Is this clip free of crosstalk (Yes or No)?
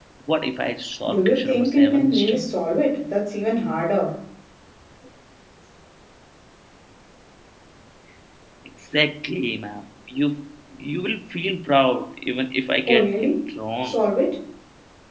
No